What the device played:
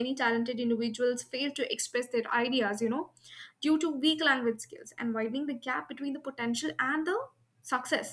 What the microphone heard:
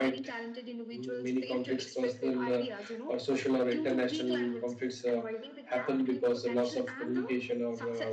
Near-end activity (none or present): present